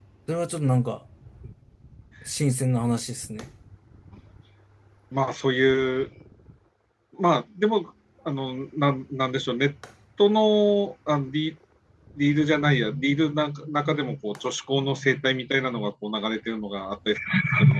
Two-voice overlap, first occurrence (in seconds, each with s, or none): none